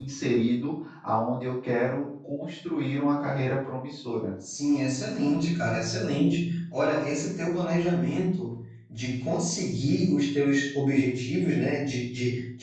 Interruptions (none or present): none